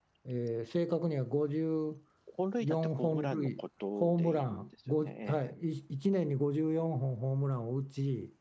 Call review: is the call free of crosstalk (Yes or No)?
No